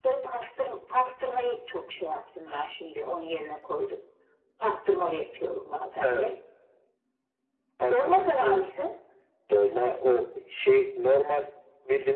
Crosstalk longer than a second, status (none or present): none